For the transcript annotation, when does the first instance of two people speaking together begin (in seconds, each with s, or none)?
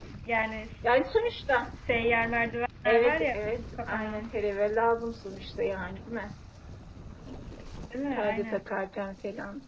2.9 s